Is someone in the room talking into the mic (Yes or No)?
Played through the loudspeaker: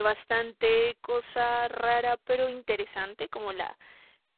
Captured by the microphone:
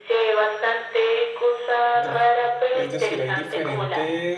Yes